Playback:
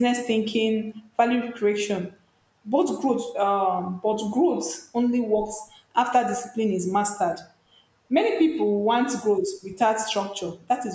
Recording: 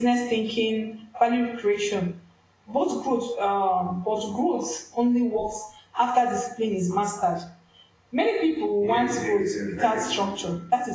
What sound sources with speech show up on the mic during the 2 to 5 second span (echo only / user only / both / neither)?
echo only